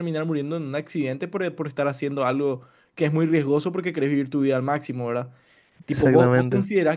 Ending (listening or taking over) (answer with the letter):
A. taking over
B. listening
B